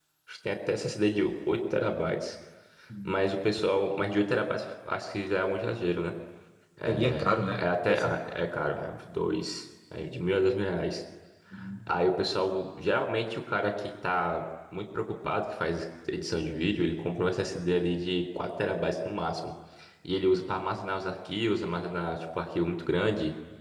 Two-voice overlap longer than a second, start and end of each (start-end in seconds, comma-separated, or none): 6.8-8.3